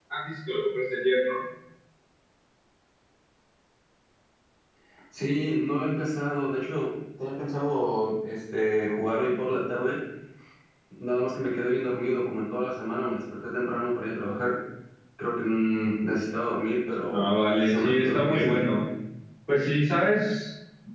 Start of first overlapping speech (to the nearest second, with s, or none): 17 s